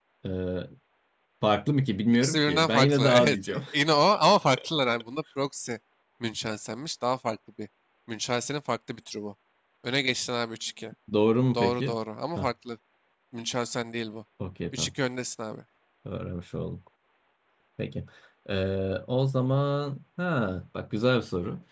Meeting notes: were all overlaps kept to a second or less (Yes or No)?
No